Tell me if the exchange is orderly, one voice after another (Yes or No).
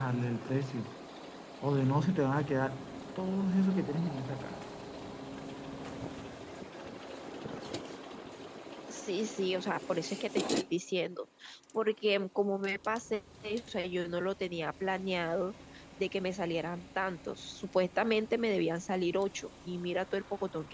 Yes